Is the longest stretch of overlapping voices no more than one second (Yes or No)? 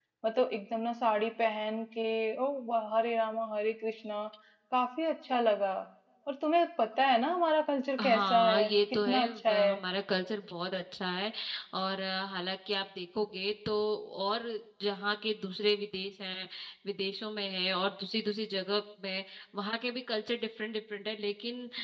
No